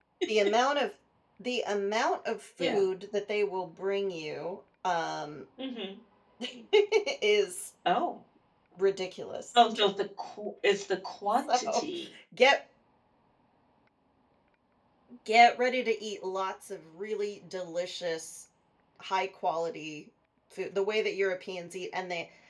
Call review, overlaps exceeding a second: none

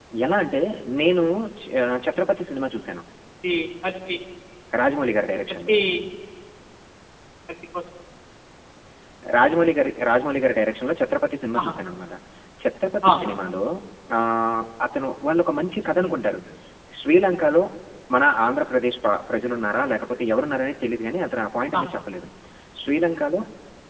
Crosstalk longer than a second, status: none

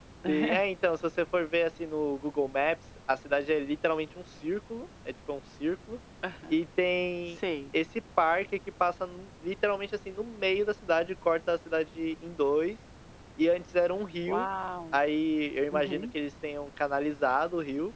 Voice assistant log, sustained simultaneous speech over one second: none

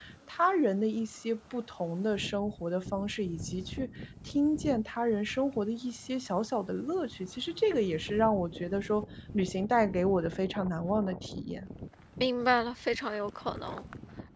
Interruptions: none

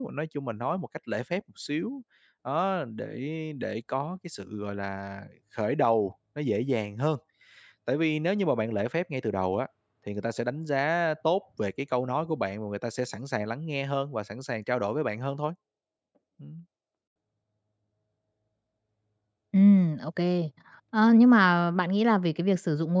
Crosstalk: none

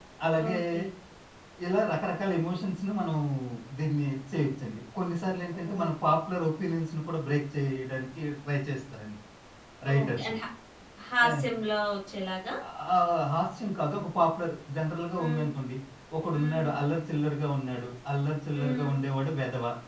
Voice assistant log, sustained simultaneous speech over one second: none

